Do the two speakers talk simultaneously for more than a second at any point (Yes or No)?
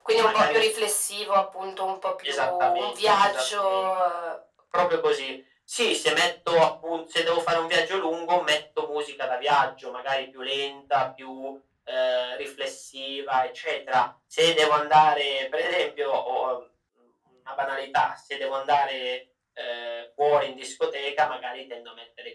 Yes